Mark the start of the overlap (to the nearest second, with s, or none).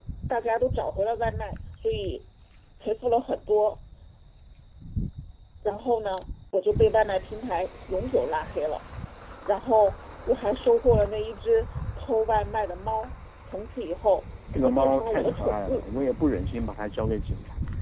15 s